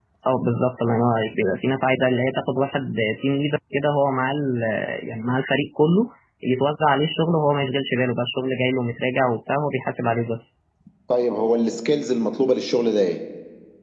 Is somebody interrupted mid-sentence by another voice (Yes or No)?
No